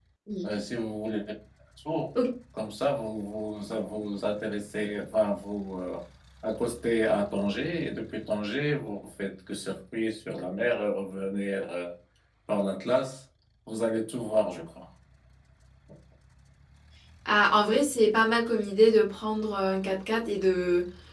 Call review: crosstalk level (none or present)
none